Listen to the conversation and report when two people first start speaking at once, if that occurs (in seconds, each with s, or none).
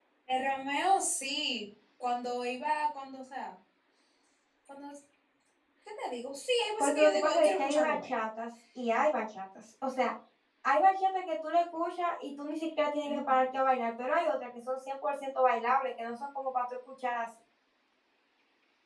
6.8 s